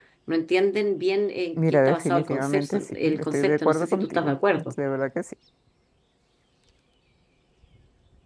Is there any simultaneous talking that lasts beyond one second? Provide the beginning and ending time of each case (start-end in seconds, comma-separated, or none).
1.6-4.3